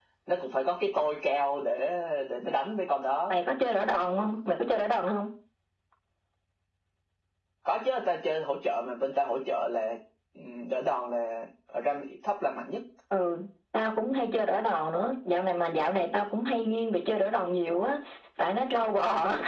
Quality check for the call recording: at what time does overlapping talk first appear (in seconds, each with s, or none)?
none